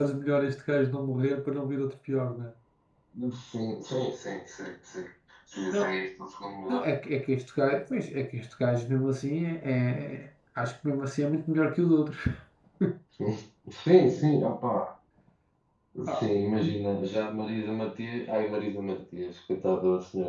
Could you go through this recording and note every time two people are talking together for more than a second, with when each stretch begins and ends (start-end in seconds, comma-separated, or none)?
none